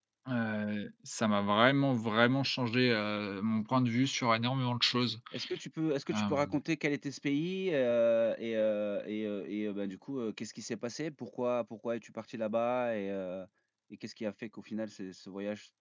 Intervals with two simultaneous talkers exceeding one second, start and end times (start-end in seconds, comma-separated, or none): none